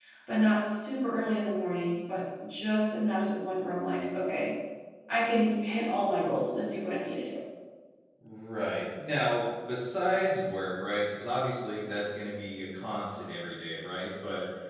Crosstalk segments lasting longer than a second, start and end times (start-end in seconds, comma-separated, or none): none